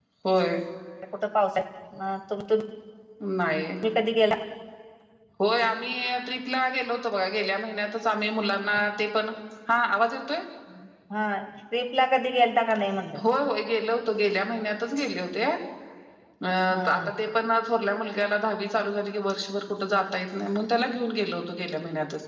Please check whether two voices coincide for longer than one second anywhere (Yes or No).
No